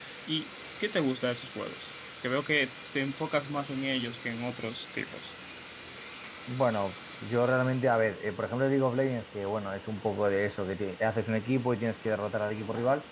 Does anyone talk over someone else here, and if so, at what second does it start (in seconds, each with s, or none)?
none